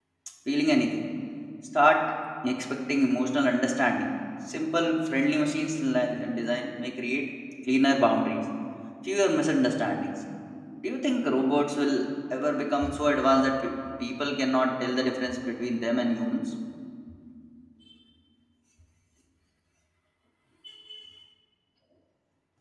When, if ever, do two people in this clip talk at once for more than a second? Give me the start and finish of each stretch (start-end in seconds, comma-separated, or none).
none